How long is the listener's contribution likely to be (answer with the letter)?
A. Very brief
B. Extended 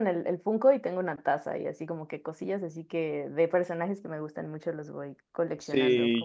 B